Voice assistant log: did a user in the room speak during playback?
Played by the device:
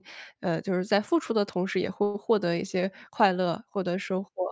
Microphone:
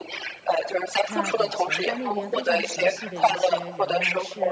Yes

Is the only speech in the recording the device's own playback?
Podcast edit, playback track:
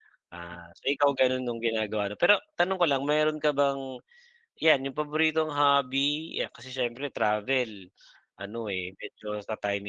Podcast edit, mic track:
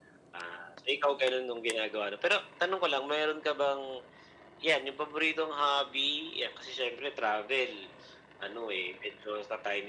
Yes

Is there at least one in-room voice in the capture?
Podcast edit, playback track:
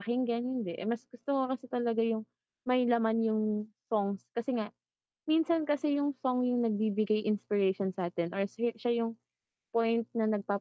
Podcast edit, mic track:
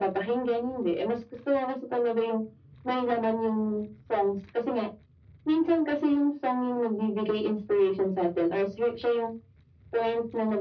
No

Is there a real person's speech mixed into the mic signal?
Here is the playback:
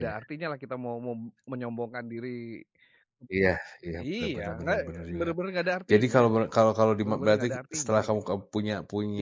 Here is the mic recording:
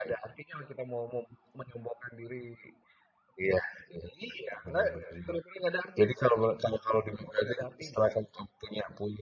No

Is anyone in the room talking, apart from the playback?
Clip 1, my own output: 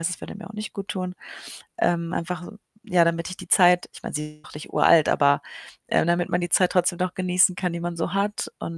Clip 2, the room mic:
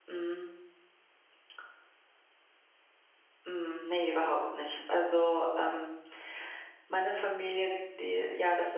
Yes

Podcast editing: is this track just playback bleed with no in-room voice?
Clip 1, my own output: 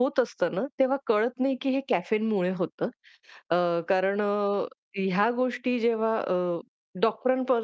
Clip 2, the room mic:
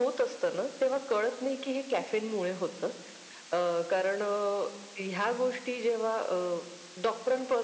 Yes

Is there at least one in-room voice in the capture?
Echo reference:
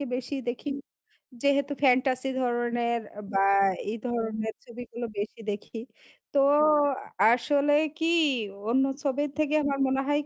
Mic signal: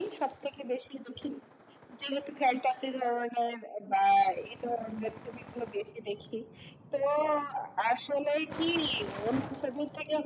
No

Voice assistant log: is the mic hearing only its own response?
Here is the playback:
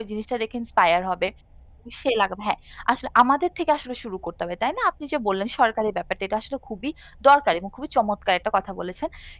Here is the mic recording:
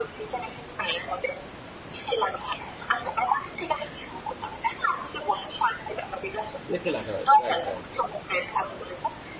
No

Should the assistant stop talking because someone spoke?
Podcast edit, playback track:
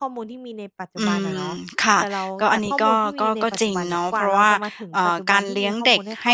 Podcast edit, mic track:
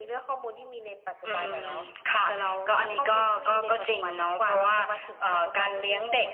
No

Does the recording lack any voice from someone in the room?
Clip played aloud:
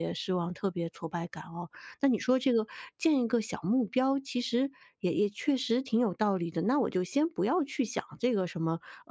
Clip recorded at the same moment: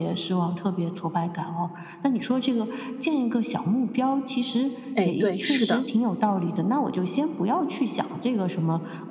No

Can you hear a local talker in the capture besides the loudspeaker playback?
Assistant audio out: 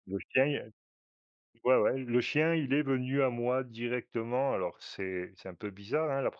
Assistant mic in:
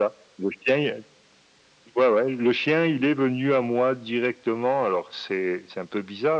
No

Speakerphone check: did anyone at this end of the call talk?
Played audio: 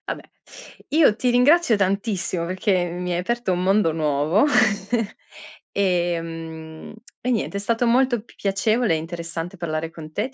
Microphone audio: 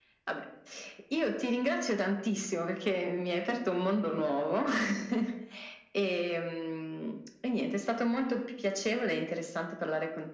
No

